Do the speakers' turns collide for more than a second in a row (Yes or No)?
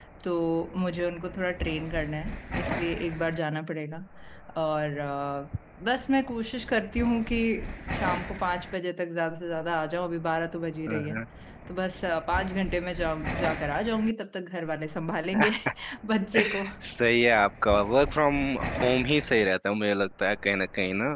No